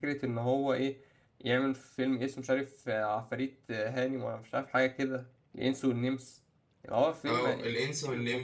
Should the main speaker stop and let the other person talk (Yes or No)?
Yes